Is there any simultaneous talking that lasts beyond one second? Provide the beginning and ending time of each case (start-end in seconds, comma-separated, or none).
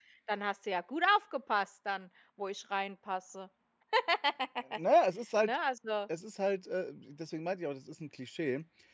none